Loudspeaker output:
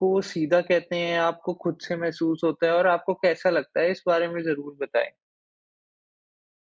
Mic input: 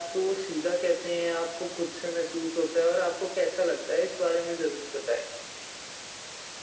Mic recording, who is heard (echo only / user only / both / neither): echo only